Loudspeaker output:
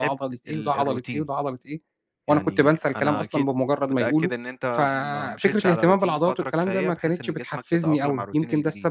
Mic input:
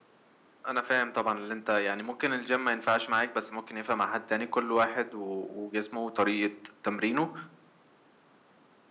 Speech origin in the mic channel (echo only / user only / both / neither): user only